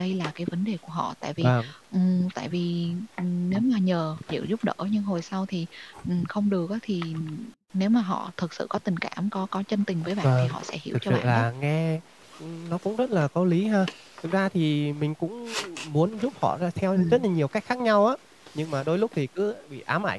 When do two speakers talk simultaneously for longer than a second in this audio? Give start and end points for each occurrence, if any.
none

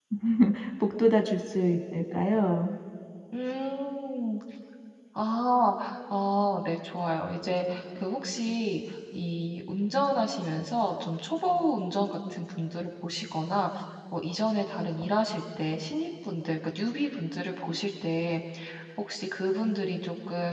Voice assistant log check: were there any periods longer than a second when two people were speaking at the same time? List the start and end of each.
none

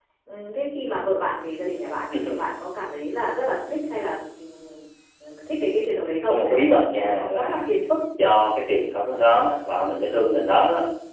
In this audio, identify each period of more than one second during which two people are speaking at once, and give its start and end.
6.3-7.6

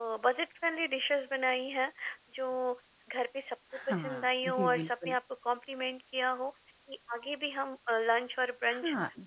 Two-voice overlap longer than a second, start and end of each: 3.9-5.2

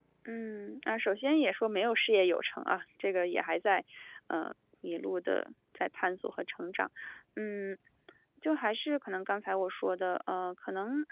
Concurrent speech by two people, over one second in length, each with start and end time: none

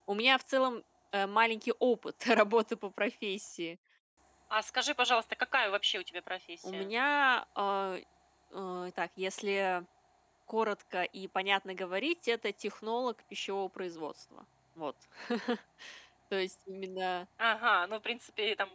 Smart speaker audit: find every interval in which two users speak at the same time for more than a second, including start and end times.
none

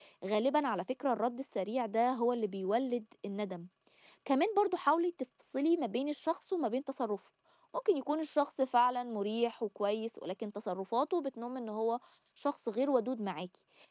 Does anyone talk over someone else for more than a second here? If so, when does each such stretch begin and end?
none

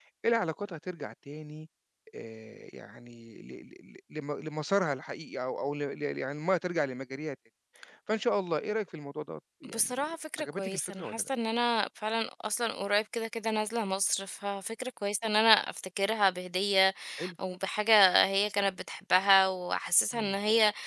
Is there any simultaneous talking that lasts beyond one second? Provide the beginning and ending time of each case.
9.8-11.3

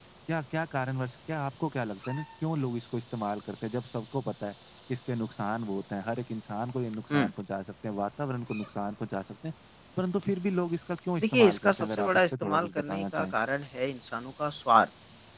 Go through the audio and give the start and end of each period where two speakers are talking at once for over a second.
11.2-13.3

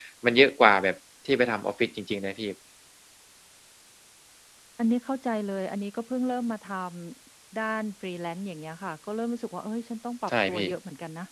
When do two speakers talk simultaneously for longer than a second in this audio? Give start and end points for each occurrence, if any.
none

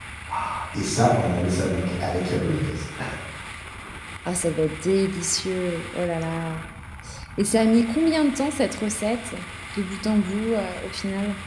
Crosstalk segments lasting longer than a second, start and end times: none

